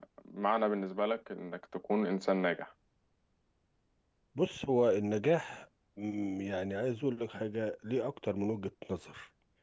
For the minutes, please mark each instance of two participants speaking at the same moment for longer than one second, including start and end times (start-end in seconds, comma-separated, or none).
none